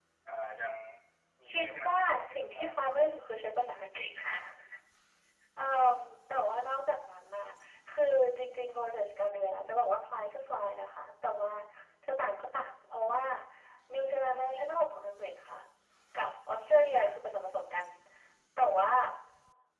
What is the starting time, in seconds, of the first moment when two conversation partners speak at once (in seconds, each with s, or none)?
1.5 s